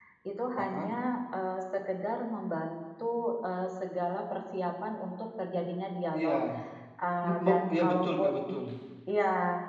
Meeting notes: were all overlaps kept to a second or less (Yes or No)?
No